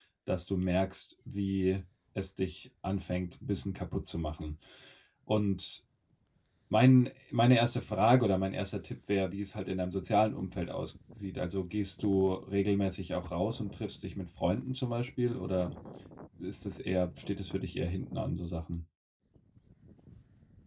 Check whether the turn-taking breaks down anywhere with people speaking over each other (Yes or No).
No